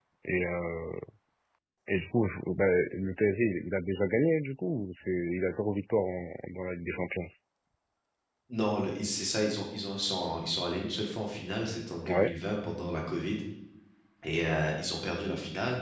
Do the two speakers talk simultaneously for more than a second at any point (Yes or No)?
No